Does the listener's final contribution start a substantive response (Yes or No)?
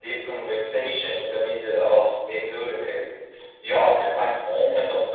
No